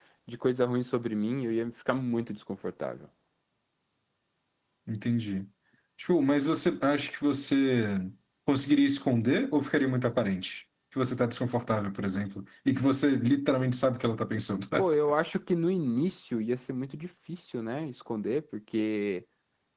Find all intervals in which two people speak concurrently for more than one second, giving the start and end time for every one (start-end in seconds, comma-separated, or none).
none